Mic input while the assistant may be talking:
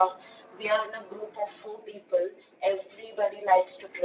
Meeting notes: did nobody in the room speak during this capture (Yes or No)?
Yes